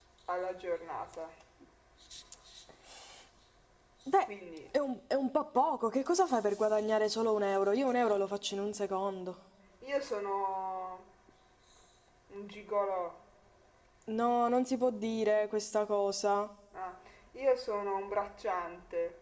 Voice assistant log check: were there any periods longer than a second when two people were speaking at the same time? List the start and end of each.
none

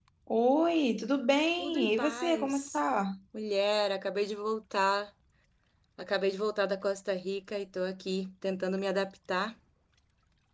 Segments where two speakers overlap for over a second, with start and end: 1.6-2.8

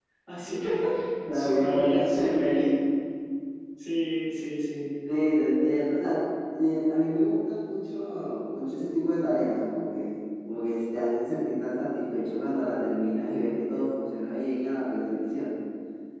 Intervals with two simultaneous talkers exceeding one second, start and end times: 1.3-2.8

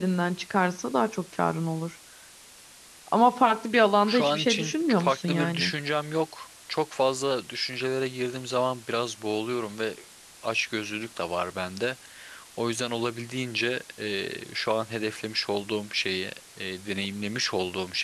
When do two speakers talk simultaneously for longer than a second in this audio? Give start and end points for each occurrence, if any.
4.1-5.7

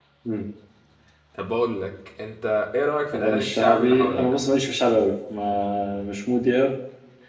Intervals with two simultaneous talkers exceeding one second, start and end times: 3.1-4.4

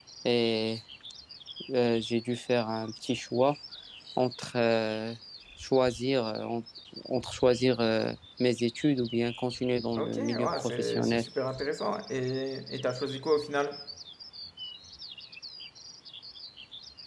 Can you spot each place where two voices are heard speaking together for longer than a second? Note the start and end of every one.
10.0-11.2

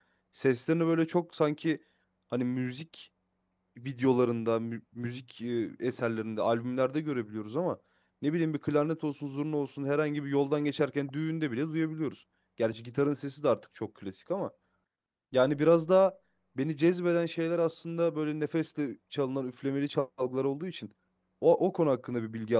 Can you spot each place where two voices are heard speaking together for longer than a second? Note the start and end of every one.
none

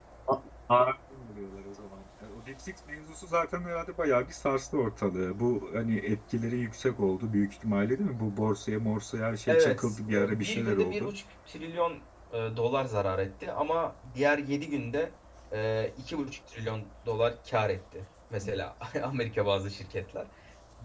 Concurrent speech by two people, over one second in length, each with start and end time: 9.5-11.1

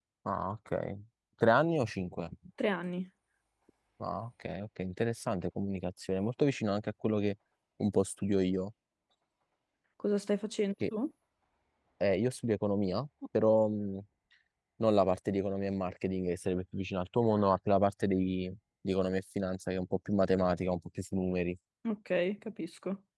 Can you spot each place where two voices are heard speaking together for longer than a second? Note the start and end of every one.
none

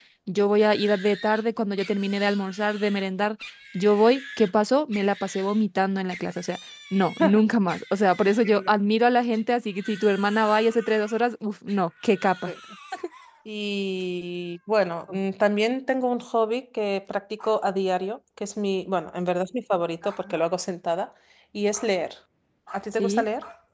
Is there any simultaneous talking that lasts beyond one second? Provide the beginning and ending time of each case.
none

